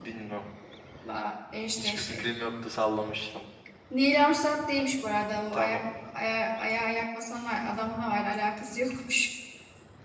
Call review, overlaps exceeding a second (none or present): none